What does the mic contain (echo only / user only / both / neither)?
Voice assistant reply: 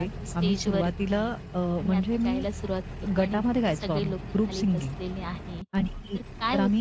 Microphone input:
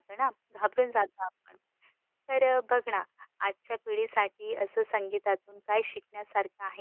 user only